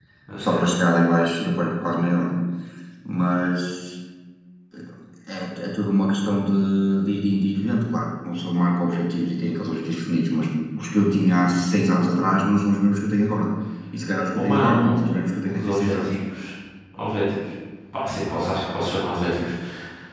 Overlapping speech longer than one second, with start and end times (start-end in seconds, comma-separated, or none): 14.4-16.1